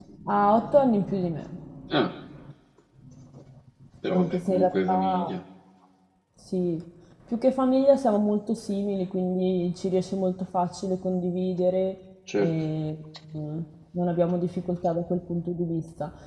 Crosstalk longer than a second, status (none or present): present